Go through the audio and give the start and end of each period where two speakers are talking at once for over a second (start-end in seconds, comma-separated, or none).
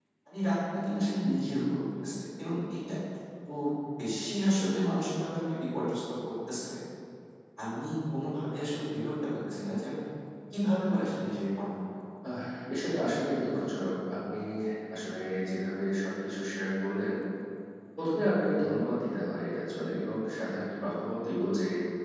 none